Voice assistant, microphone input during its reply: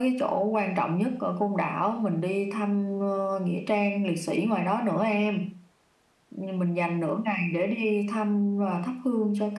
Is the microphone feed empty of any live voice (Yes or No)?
Yes